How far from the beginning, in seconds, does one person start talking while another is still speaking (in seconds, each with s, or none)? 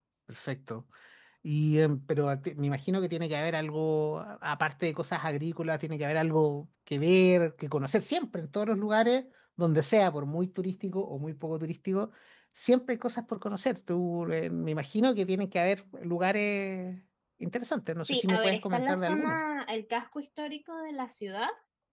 18.0 s